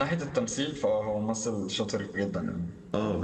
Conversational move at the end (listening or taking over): taking over